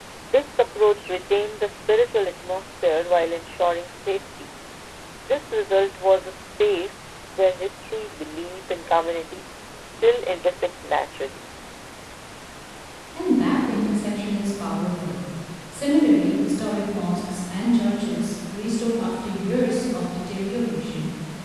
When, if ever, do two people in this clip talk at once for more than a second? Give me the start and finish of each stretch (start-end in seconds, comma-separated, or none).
none